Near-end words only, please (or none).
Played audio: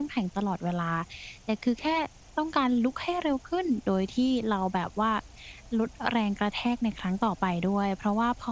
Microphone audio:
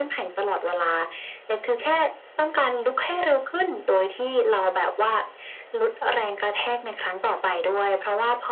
none